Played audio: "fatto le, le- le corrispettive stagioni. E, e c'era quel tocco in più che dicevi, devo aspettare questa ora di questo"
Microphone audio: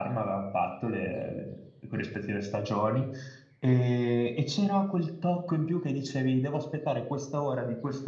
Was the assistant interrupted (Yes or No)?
No